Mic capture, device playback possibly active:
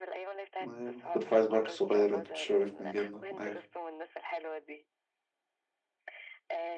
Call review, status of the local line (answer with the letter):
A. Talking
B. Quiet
A